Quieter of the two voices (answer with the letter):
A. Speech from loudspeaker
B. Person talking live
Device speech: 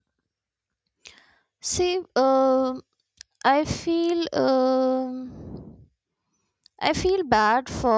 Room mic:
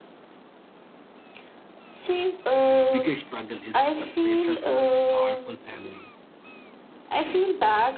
B